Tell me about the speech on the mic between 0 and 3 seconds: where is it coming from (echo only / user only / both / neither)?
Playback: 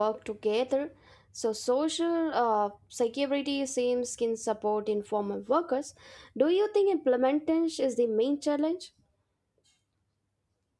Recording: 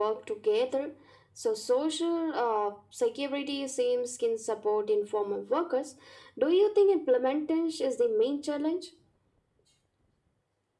echo only